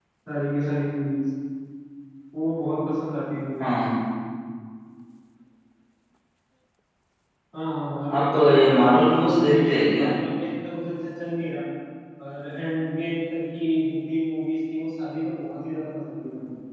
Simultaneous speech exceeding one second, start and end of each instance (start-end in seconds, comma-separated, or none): 8.2-10.1